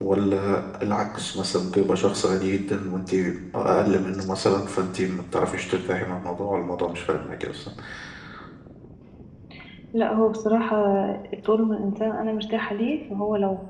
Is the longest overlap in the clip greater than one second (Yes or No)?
No